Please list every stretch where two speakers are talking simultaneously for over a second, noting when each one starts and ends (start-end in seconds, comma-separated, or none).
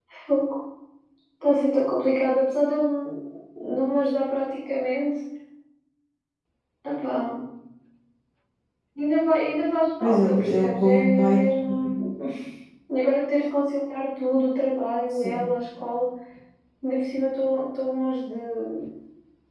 10.0-11.8